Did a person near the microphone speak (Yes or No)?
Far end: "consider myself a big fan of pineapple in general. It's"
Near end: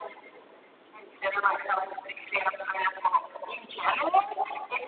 No